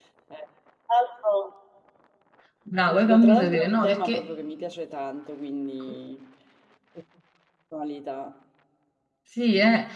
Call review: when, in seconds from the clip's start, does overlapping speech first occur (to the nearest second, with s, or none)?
3 s